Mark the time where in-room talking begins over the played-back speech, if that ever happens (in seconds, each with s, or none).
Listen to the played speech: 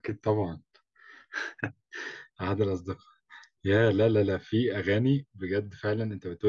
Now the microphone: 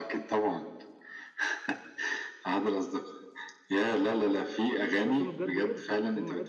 5.0 s